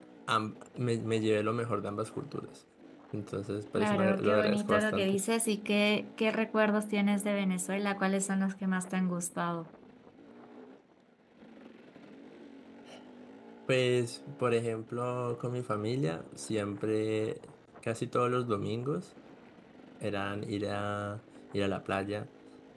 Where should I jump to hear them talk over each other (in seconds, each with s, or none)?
3.8 s